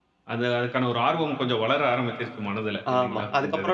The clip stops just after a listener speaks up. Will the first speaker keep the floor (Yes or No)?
No